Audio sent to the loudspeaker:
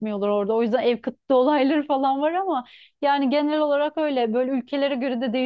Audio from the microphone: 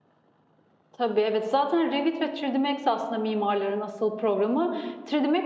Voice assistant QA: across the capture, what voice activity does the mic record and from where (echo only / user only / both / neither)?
user only